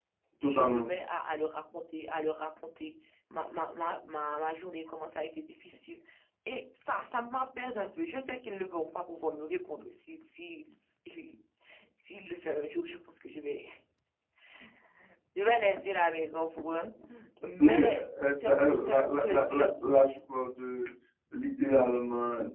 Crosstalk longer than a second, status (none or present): present